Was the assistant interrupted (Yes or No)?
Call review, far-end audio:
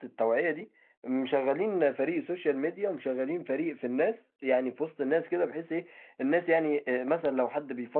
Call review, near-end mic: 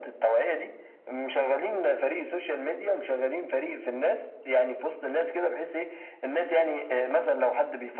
No